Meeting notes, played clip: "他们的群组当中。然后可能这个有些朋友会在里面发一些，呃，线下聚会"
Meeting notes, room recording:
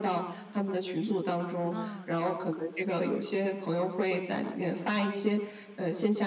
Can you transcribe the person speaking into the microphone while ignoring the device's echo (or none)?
哦。